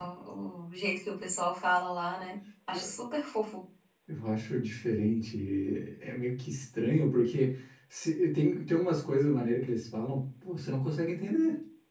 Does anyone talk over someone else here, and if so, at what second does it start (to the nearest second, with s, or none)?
none